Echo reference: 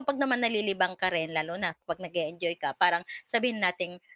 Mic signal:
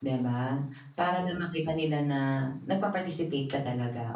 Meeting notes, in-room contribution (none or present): present